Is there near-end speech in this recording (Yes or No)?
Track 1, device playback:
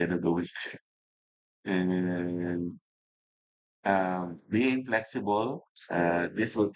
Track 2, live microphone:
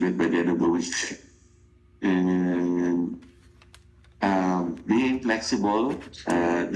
No